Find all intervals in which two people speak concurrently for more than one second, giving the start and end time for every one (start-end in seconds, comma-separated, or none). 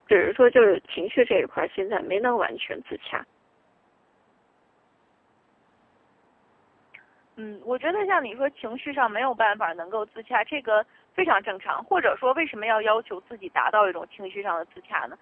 none